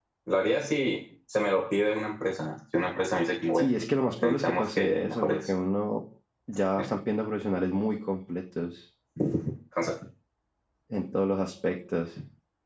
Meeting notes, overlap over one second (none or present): present